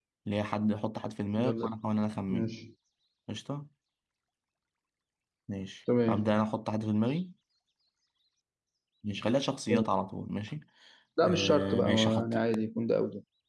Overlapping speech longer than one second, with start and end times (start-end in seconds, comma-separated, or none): 11.2-12.4